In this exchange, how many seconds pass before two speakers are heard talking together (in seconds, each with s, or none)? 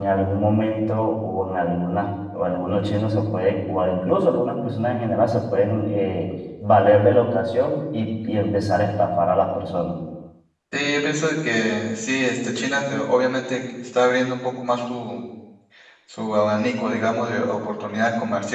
none